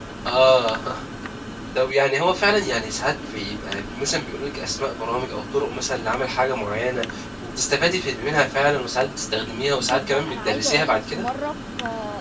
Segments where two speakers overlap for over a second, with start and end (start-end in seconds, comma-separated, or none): 9.8-11.2